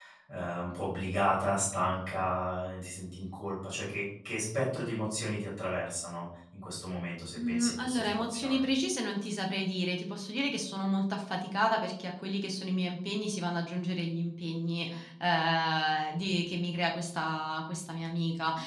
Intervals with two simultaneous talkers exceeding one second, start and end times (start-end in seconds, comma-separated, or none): 7.4-8.6